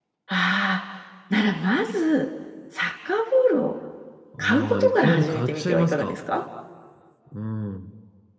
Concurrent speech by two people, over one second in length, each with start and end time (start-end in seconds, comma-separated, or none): 4.4-6.2